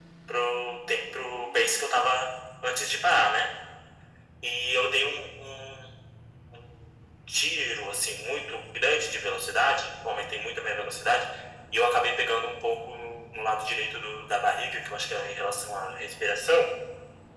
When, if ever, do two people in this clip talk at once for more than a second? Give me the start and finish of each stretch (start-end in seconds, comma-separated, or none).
none